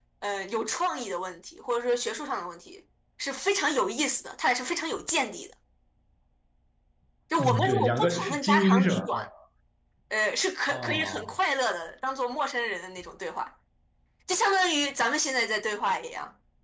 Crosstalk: present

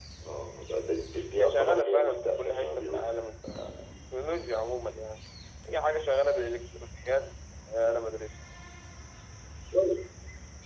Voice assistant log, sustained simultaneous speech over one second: present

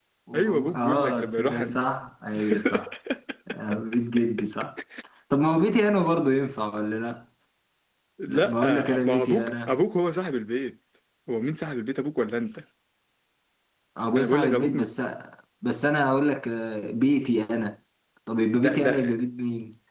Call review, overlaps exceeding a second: present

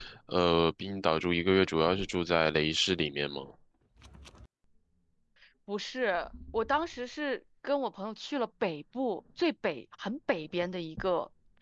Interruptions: none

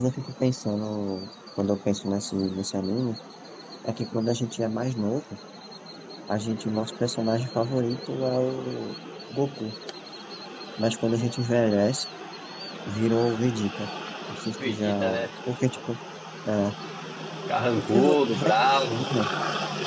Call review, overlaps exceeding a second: present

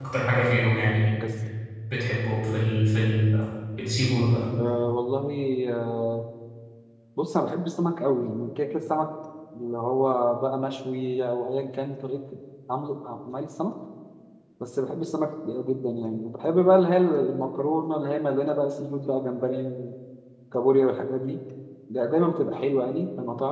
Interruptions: none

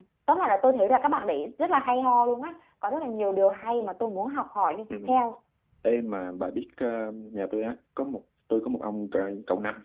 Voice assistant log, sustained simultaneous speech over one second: none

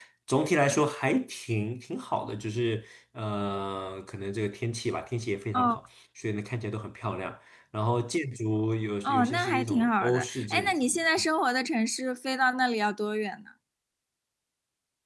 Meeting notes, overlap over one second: present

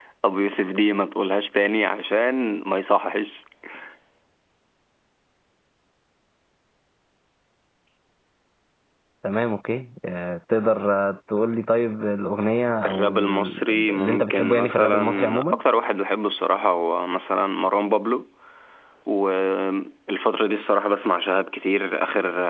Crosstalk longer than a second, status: present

